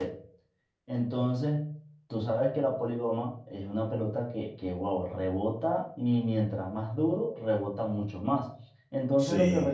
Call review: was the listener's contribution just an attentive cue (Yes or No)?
Yes